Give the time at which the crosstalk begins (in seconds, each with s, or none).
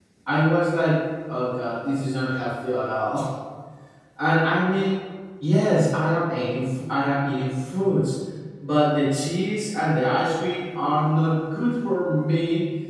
none